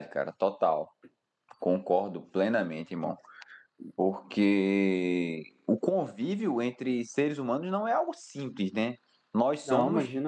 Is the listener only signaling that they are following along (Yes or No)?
Yes